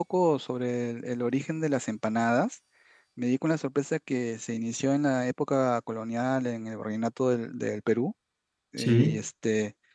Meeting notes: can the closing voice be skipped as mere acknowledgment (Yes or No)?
Yes